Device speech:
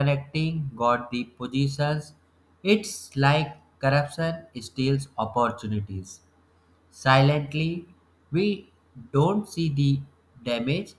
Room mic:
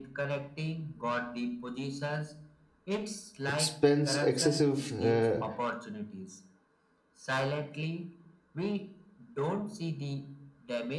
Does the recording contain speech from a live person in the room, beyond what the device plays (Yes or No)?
Yes